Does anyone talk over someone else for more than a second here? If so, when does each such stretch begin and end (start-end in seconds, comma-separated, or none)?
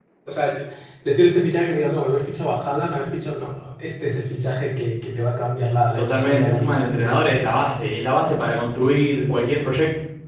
6.0-7.5